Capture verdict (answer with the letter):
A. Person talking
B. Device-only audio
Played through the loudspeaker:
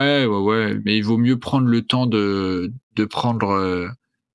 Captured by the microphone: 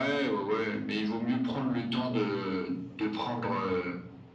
B